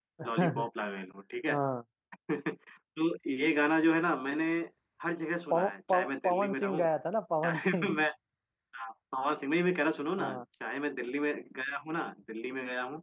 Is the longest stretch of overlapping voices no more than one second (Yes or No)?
No